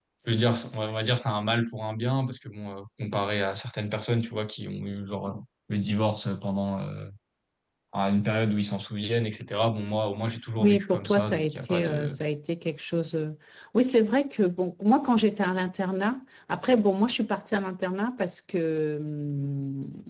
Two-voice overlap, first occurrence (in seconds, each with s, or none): 10.6 s